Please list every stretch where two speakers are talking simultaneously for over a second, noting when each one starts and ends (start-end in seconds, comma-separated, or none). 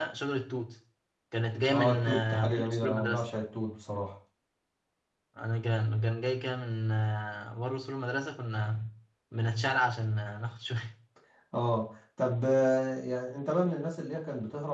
1.7-3.2